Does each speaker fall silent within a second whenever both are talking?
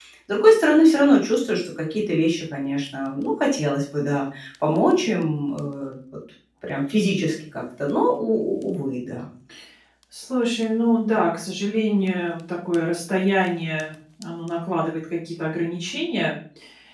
Yes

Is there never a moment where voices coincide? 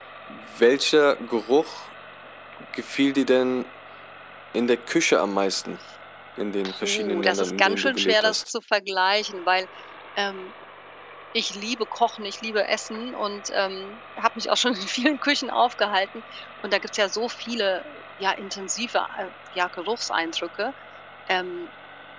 No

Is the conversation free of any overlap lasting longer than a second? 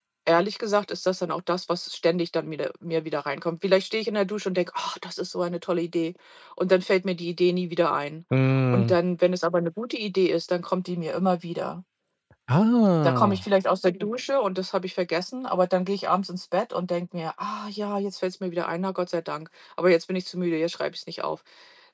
Yes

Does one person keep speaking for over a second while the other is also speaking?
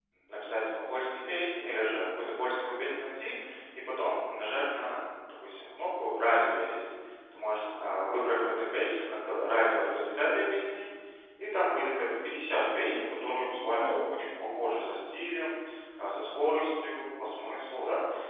Yes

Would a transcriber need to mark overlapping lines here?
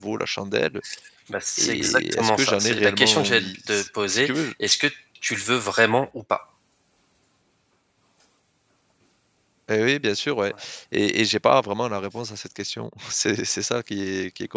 Yes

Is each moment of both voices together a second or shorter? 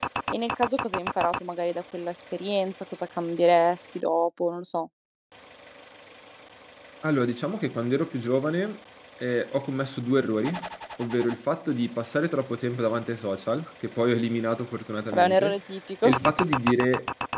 Yes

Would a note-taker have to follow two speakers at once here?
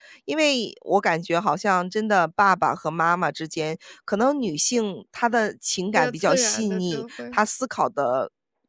Yes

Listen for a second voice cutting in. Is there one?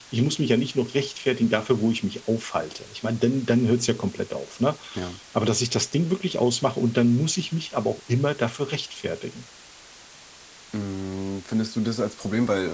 No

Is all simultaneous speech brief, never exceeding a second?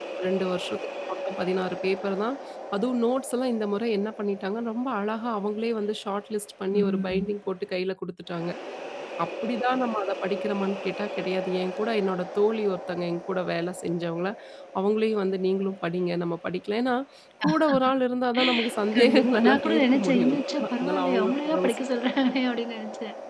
No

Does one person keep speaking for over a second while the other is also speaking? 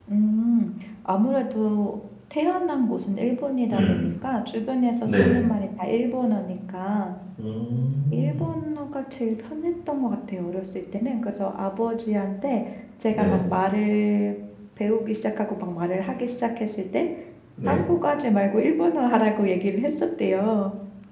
No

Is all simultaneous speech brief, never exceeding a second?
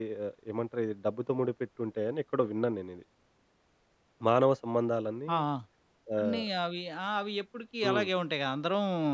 Yes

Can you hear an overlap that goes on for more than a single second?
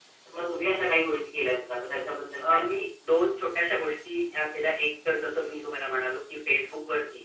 No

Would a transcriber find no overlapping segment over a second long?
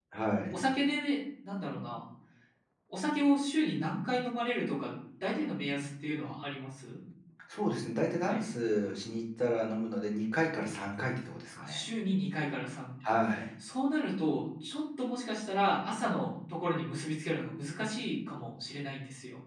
Yes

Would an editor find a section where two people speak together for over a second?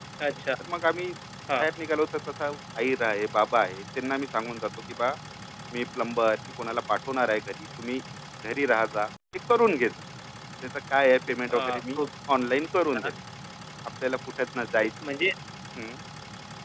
No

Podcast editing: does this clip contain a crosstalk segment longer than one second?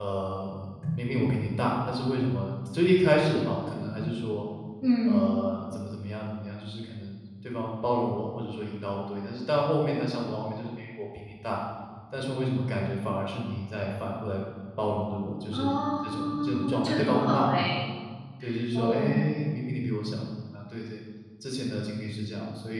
Yes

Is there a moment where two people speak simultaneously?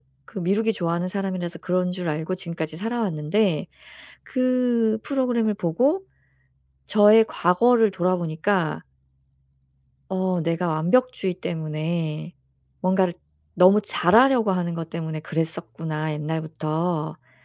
No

